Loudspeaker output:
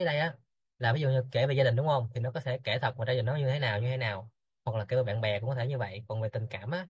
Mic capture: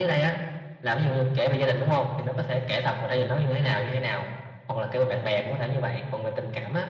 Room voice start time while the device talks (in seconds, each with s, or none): none